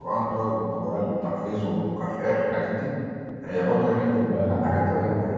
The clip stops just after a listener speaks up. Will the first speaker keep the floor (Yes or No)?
No